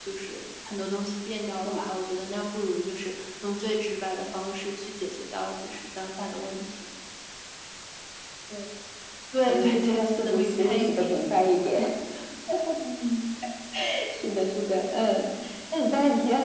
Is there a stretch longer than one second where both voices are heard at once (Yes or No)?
Yes